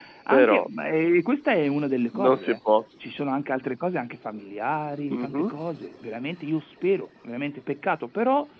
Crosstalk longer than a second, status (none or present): none